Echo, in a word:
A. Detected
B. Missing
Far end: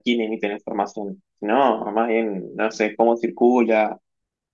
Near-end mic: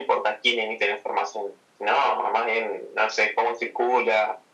A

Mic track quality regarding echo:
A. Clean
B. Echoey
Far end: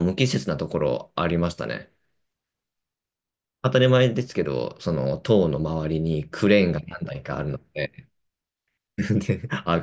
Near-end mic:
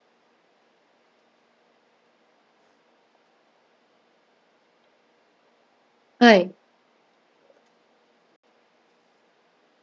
A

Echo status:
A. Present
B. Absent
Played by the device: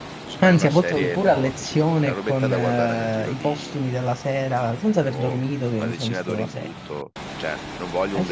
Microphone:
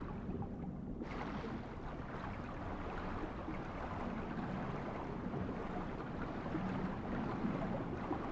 B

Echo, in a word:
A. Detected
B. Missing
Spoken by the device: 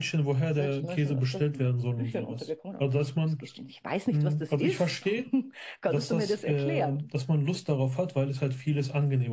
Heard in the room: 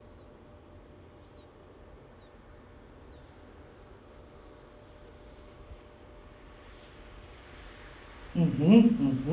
B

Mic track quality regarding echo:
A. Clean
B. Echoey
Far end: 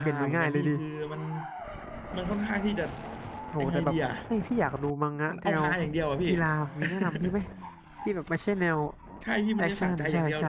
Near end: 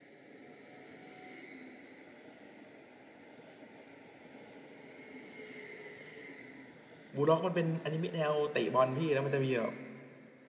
A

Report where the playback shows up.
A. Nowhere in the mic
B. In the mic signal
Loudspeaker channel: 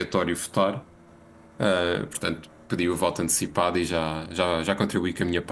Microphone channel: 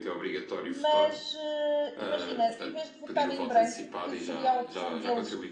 B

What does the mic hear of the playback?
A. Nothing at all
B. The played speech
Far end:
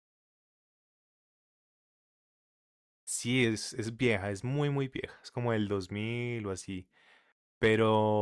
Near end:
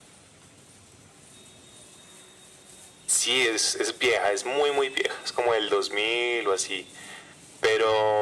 B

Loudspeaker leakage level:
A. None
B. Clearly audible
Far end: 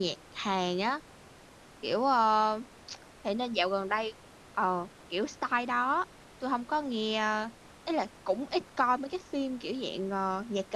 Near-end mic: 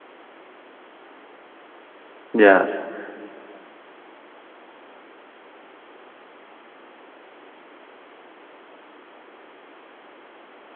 A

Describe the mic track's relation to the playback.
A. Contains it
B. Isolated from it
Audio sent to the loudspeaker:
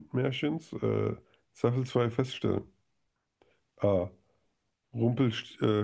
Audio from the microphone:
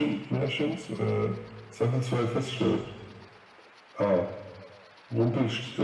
A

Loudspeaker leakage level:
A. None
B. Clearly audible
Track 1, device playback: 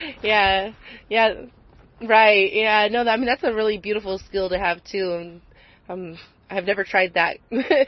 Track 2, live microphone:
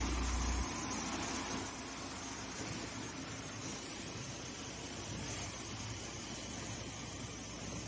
A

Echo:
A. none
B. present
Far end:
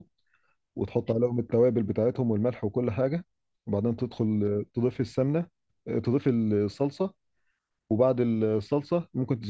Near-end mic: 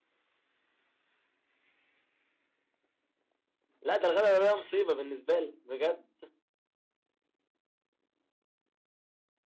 A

